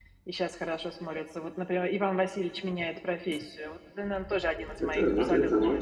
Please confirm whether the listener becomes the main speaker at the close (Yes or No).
Yes